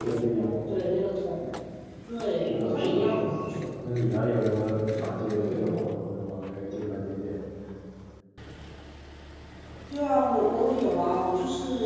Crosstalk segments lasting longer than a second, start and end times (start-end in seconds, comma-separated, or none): 2.2-3.6